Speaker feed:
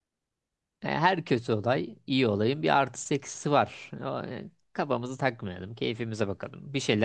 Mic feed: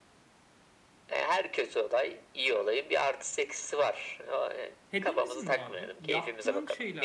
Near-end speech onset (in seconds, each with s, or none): 4.9 s